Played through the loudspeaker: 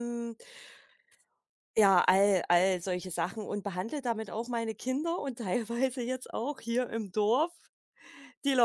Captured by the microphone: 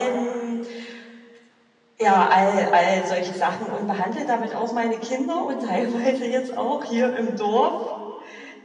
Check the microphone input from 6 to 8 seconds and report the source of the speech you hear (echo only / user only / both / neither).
echo only